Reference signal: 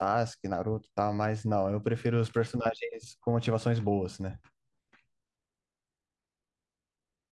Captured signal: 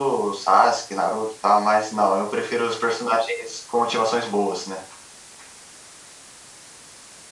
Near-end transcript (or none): none